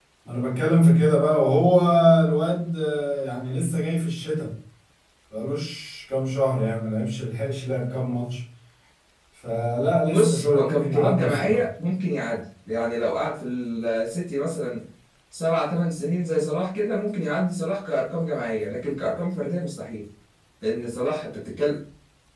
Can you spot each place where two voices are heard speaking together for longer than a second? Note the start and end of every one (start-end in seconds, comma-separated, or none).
10.1-11.7